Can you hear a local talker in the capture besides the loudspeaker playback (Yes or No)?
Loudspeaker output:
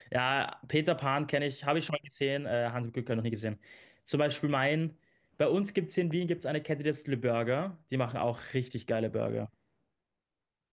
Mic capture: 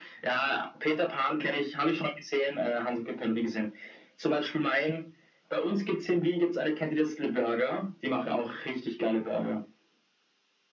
No